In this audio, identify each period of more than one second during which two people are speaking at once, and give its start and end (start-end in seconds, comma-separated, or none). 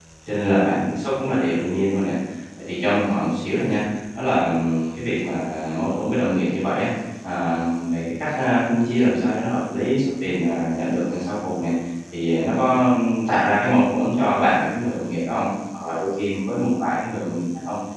none